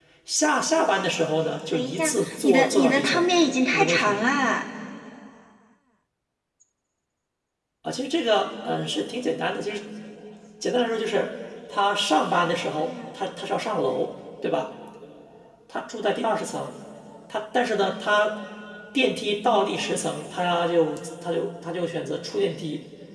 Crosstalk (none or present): present